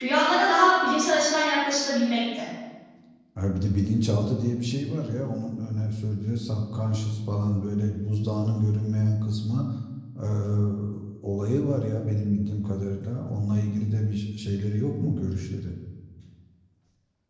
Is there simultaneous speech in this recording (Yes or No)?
No